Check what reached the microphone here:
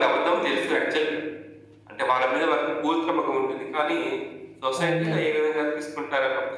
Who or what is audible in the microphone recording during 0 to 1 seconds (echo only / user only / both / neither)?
echo only